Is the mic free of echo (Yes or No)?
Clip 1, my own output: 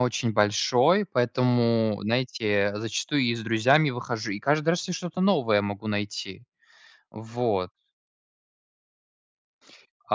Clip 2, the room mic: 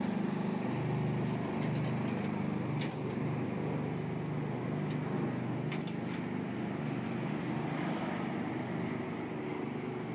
Yes